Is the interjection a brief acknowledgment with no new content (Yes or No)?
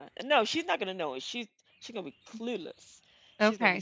No